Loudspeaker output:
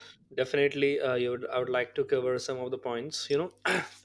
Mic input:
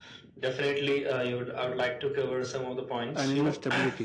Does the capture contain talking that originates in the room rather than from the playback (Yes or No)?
Yes